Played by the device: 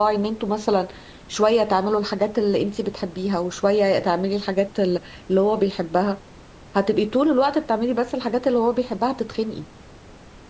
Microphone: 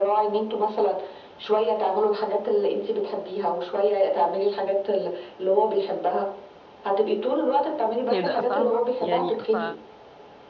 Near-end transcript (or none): كده فاهمه يعني ف